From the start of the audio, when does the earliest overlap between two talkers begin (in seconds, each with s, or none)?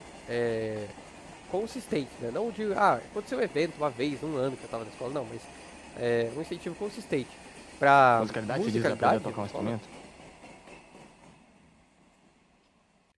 8.2 s